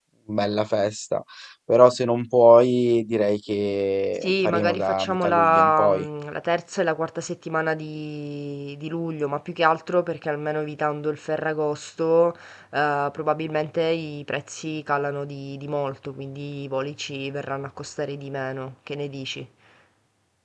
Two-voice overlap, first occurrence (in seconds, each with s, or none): 4.2 s